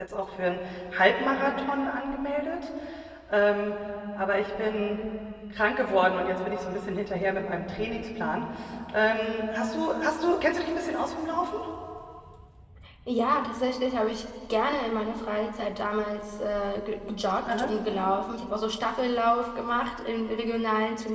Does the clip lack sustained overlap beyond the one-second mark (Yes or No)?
Yes